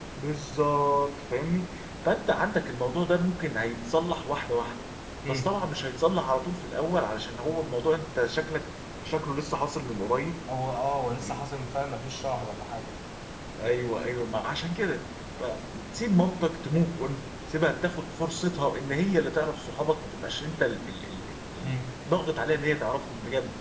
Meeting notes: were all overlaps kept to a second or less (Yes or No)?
Yes